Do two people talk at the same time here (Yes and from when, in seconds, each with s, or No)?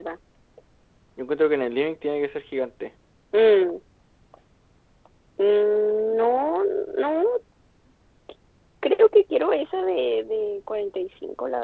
No